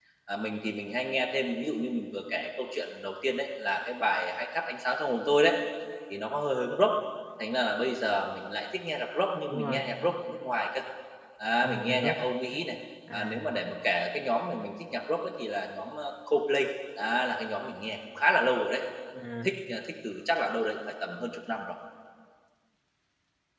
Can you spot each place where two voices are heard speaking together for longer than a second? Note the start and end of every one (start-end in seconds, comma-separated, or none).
none